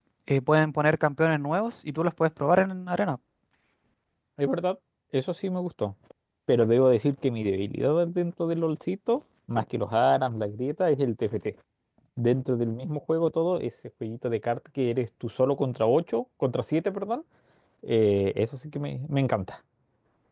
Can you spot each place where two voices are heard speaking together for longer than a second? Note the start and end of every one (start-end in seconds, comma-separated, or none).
none